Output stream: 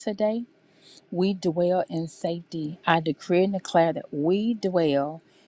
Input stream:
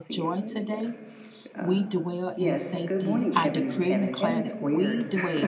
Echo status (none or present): present